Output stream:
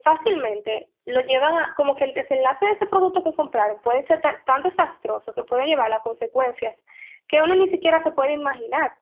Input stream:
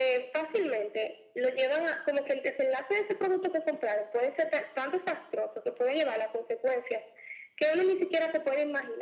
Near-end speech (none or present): none